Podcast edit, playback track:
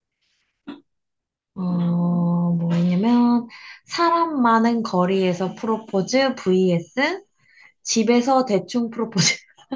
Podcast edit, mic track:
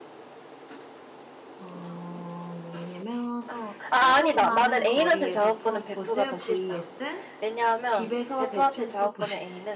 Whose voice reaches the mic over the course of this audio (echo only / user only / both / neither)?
both